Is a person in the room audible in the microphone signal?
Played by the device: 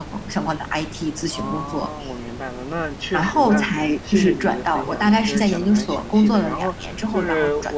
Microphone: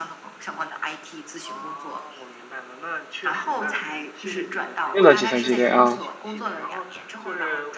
Yes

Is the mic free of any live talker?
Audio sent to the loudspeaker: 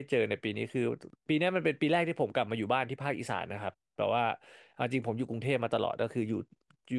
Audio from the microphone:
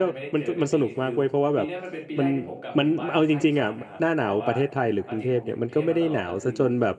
No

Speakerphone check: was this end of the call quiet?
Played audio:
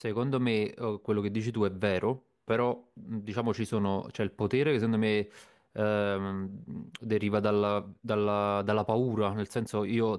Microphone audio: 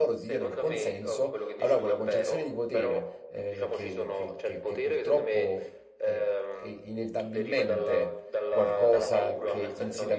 No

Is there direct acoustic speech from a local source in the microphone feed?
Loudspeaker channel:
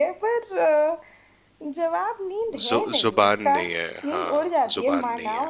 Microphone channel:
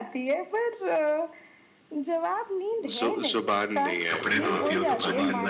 Yes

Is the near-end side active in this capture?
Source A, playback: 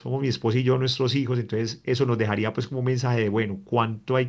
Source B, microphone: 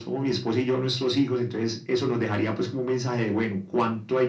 No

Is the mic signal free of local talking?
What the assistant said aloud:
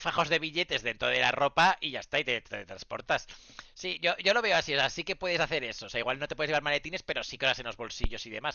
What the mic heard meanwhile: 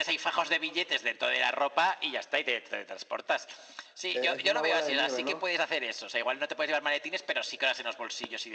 No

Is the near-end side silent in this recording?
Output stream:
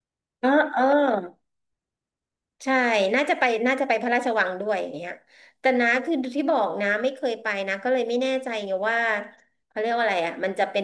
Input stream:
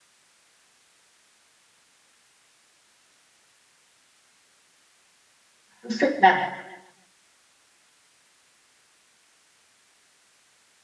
No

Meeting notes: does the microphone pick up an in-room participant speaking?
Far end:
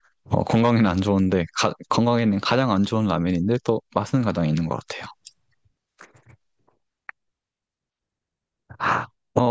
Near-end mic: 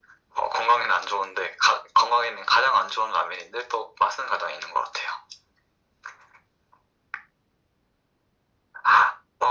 No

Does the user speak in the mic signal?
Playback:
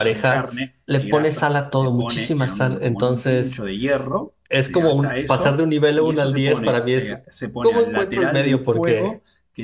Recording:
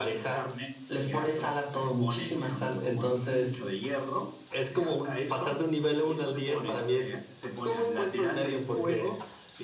No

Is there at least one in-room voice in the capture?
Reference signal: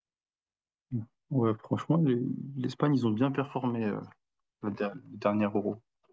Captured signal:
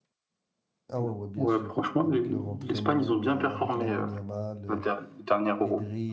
Yes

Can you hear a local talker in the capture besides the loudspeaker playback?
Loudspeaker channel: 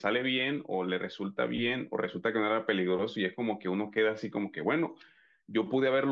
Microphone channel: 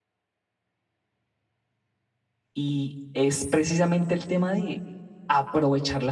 Yes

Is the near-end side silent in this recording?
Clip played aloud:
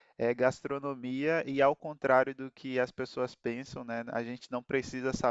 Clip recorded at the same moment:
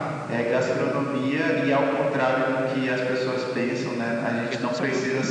No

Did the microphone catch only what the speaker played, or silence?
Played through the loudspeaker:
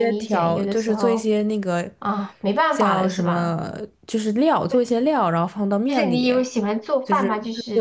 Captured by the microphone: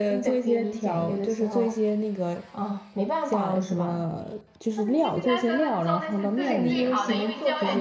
No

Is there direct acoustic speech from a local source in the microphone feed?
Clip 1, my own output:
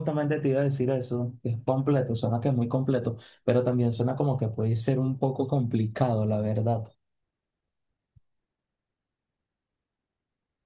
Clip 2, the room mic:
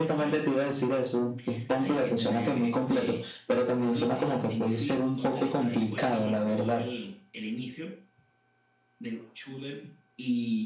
Yes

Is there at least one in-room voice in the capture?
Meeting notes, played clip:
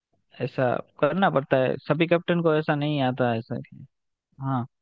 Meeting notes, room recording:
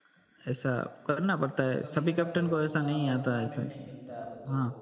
Yes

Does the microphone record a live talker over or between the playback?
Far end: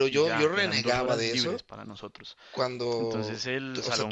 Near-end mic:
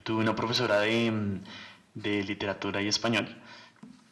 Yes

